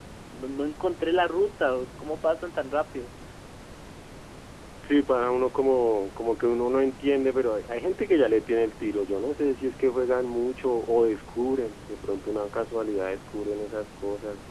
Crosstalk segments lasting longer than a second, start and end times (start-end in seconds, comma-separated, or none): none